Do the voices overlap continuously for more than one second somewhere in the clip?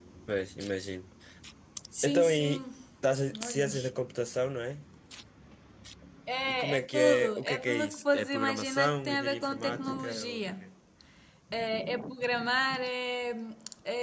Yes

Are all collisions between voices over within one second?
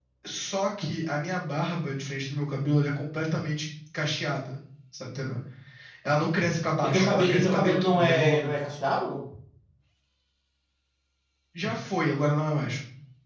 No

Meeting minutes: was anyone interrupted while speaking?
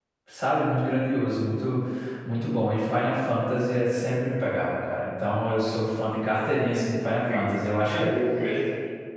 Yes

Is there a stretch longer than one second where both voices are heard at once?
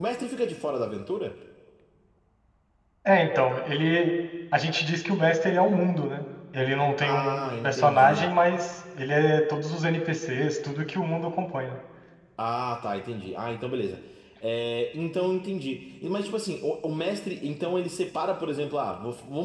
Yes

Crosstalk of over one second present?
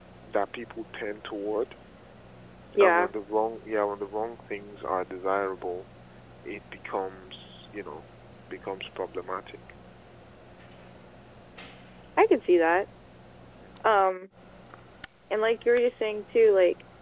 No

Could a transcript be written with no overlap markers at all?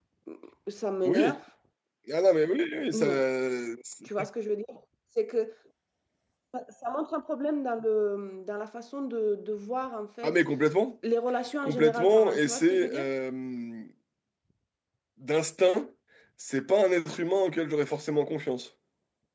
No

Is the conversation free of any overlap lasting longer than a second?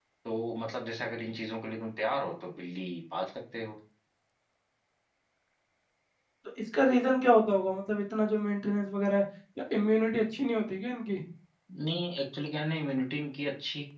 Yes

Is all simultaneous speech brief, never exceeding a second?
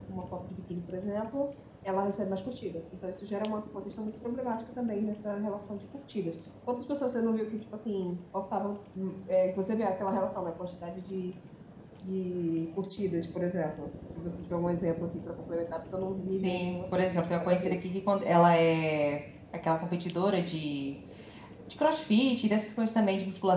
No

